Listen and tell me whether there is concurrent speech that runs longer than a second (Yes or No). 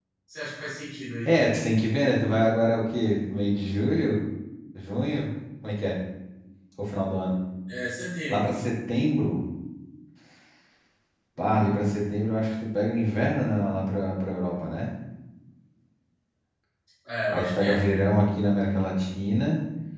No